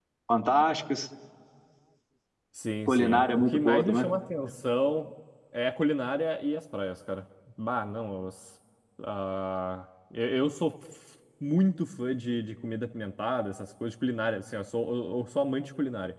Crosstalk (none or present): present